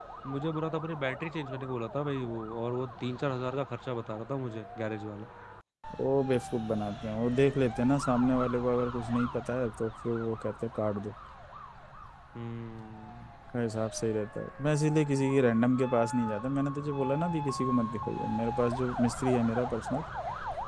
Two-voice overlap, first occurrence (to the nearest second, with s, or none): none